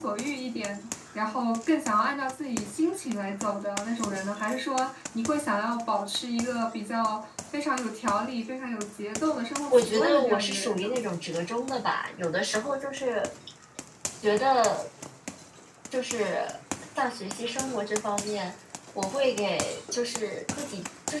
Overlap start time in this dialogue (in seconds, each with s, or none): 9.7 s